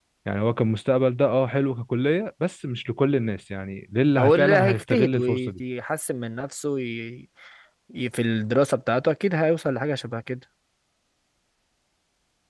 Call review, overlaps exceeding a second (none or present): present